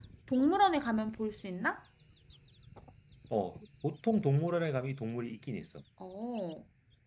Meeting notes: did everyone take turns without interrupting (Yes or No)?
Yes